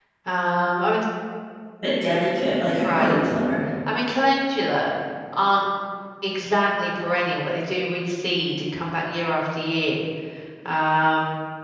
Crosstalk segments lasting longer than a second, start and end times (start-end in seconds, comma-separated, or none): none